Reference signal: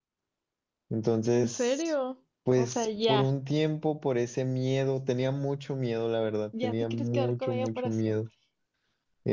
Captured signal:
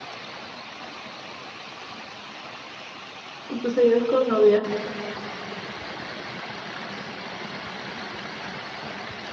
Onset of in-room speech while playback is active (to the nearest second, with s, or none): 3 s